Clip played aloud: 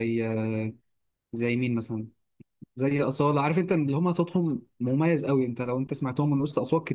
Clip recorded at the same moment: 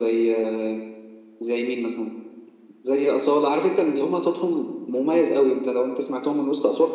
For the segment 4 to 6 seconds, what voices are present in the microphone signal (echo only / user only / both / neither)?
echo only